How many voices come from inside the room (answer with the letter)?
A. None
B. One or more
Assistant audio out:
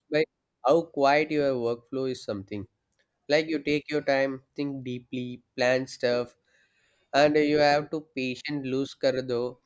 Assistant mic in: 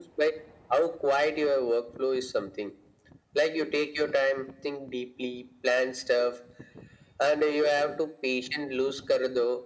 A